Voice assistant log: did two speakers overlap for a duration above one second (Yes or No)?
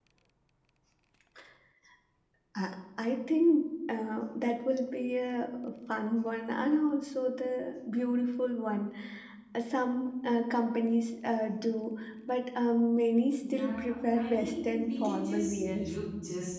Yes